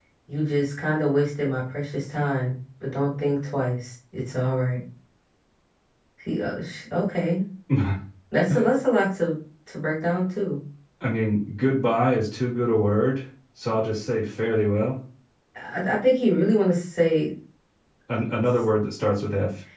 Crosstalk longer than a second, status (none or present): none